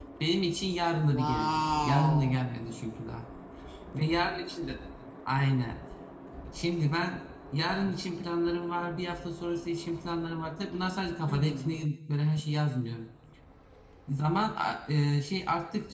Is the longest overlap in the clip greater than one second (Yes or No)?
Yes